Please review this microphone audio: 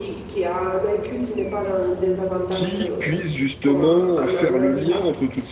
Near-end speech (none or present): present